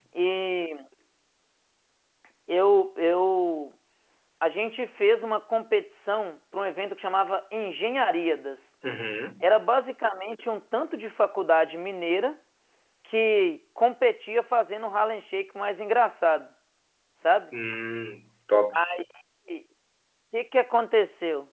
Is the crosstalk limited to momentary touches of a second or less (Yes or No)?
Yes